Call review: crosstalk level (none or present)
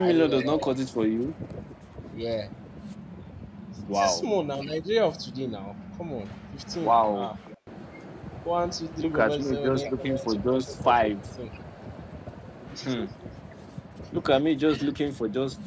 present